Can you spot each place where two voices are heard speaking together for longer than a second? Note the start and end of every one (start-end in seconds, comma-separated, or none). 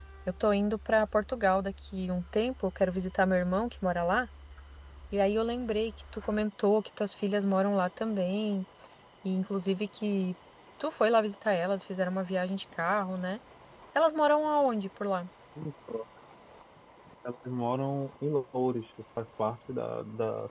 none